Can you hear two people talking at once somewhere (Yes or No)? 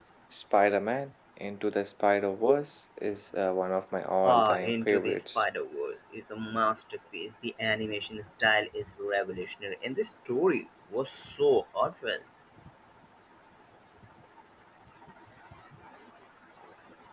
Yes